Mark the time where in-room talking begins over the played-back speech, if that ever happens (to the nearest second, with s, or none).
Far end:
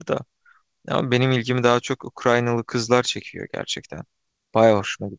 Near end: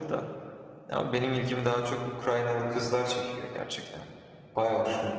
none